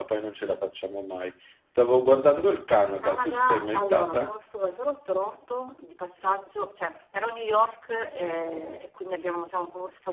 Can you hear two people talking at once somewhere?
Yes, from 3.0 s

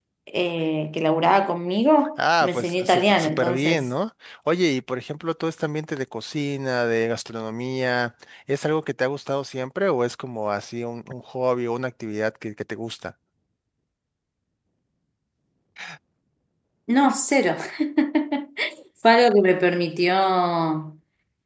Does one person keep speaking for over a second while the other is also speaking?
Yes, from 2.2 s

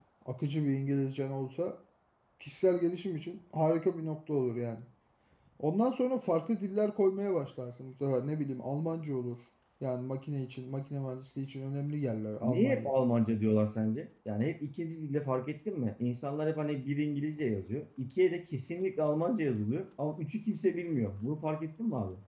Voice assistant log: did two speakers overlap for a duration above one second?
No

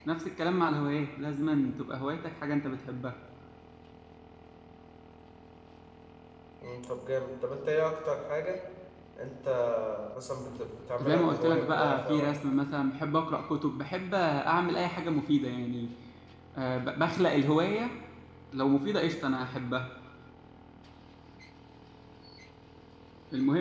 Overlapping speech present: Yes, from 11.0 s

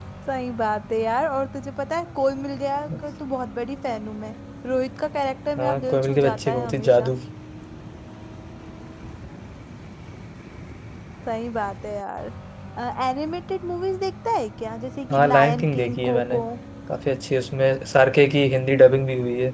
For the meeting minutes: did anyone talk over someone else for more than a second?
Yes, from 5.6 s

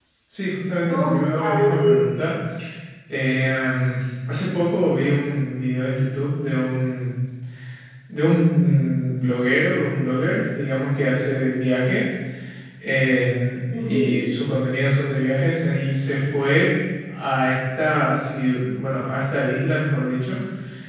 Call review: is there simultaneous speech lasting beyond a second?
Yes, from 0.9 s

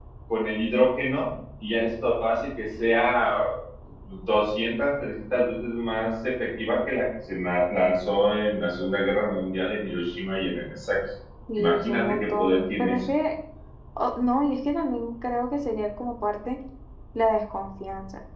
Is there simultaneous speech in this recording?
Yes, from 11.6 s

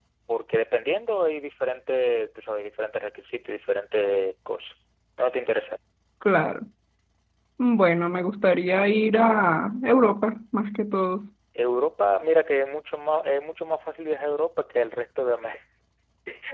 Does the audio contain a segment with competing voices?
No

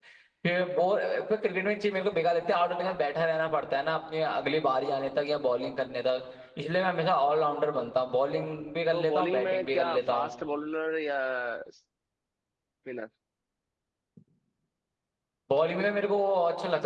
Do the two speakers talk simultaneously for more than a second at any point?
Yes, from 8.9 s

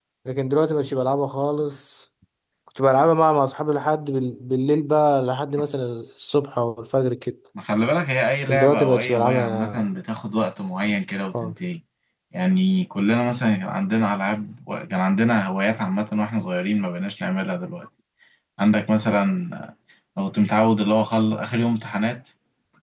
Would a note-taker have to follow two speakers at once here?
Yes, from 8.5 s

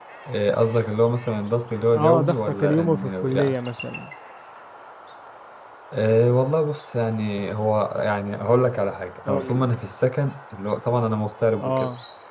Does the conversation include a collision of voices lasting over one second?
Yes, from 1.9 s

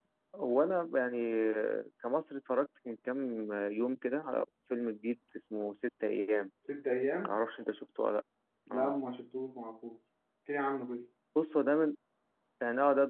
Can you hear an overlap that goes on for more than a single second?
No

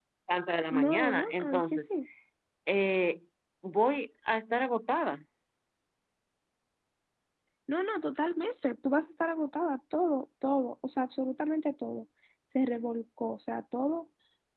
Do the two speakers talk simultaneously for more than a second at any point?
Yes, from 0.7 s

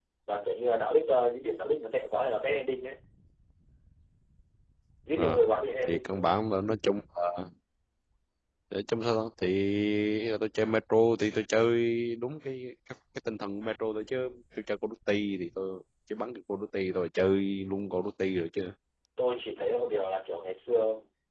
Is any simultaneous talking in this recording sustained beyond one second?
No

